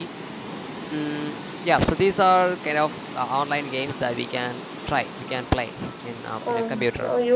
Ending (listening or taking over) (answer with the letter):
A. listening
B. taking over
B